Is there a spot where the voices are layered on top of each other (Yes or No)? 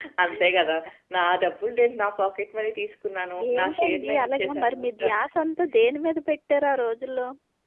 Yes